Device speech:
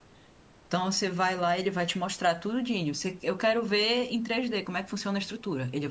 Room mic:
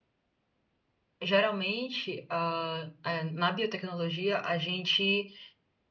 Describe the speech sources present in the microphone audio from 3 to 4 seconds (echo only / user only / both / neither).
user only